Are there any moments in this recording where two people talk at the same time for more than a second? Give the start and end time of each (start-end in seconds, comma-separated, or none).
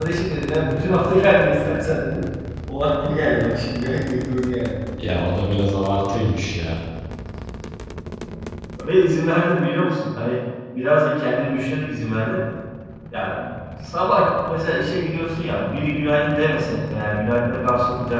none